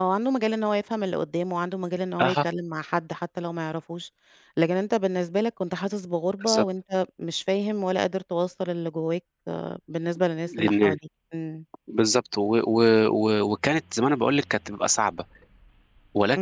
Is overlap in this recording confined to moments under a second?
Yes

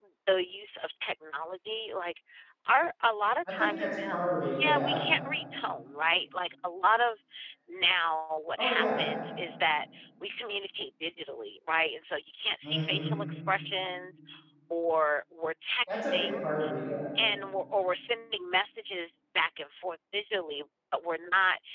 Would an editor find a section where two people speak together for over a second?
Yes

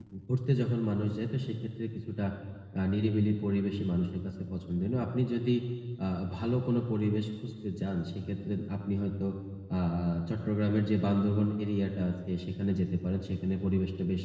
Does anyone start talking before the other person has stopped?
No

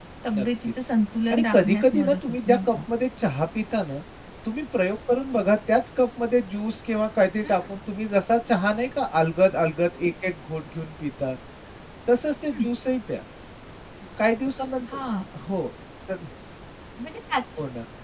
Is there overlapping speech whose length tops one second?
Yes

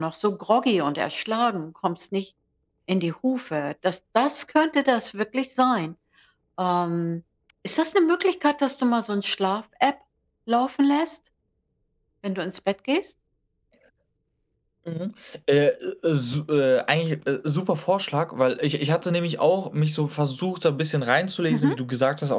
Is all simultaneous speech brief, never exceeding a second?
Yes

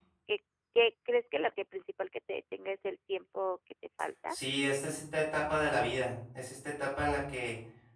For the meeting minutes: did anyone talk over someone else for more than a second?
No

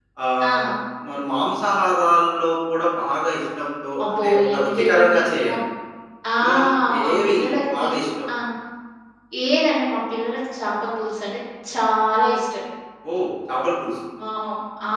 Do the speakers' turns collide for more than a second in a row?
Yes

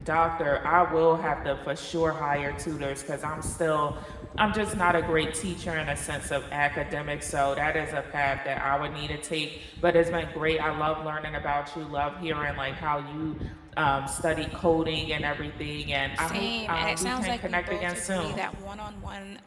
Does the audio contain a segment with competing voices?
Yes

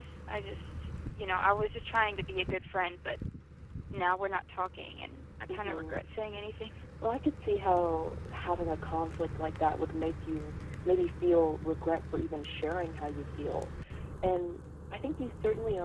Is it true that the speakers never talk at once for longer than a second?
Yes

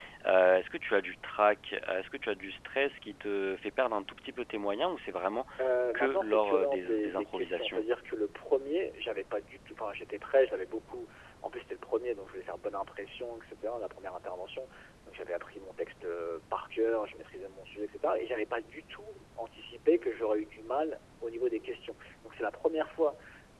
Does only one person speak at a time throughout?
No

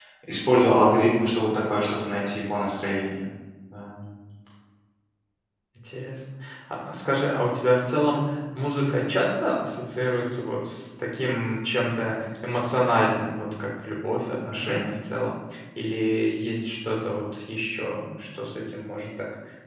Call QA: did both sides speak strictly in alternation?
Yes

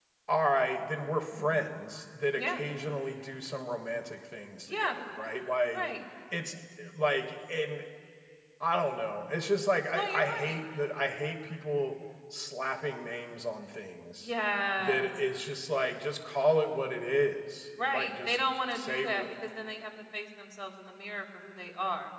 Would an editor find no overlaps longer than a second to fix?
No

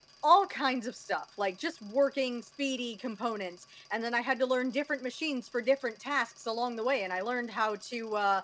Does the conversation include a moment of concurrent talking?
No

